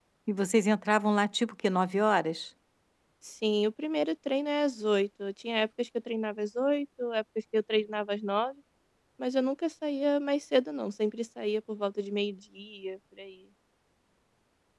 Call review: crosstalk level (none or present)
none